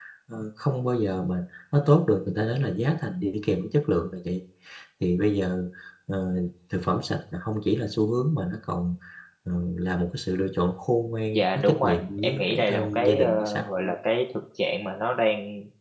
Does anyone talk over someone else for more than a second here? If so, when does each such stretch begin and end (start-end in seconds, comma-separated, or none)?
11.3-13.9